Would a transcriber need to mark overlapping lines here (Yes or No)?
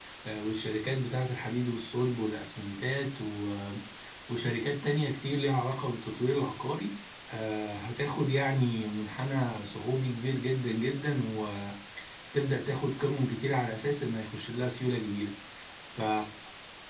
No